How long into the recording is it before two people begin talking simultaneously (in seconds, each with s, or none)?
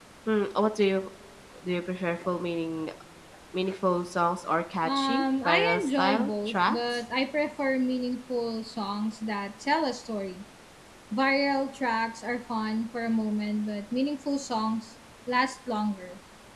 4.8 s